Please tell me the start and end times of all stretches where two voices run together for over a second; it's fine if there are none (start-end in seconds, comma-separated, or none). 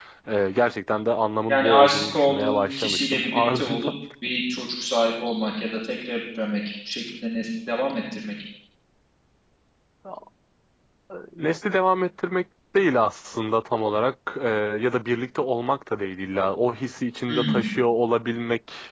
1.5-3.9